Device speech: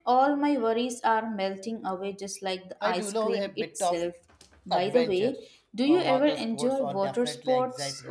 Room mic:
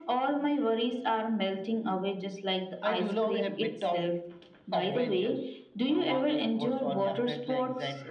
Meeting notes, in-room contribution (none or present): none